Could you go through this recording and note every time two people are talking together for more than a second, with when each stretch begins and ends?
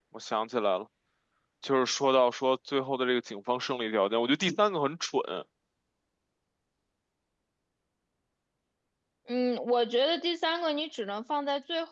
none

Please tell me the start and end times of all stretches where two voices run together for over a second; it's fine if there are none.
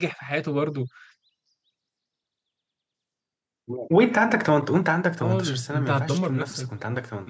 5.2-6.7

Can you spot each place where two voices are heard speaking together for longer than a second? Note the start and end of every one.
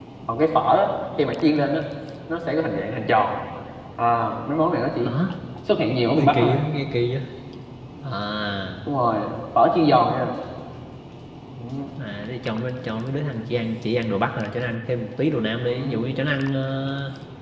none

